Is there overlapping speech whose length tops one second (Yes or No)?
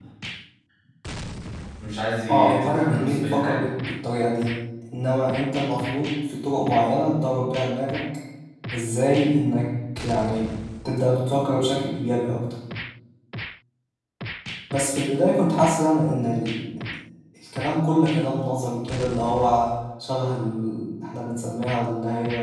Yes